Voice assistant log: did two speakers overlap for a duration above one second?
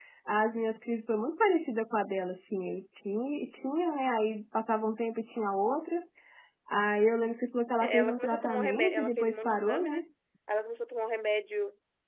Yes, from 7.8 s

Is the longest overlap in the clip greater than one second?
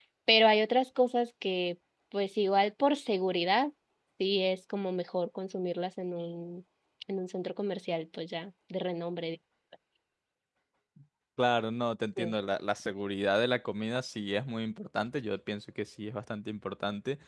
No

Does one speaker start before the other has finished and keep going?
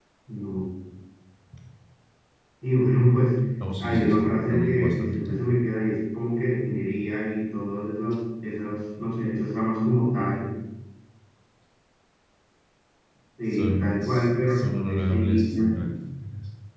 Yes, from 3.8 s

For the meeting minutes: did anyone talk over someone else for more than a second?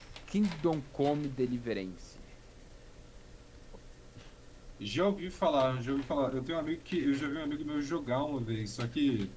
No

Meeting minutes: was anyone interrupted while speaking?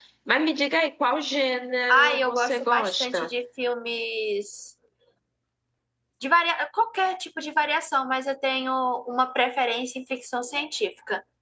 Yes, from 1.9 s

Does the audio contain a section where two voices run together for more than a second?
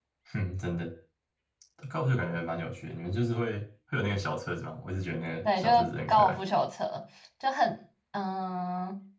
No

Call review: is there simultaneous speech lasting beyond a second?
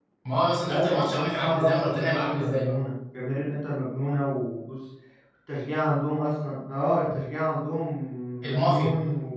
Yes, from 0.7 s

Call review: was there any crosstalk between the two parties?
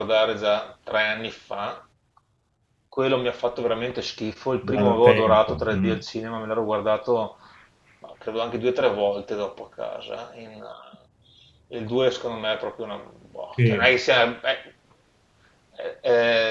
Yes, from 4.6 s

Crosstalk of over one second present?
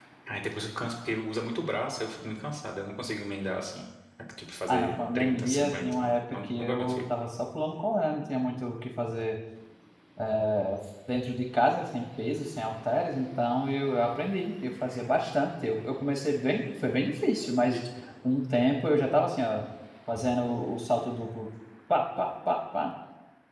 Yes, from 4.7 s

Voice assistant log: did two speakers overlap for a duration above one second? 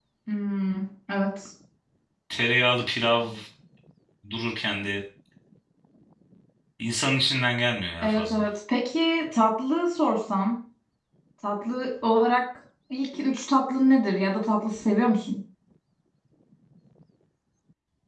No

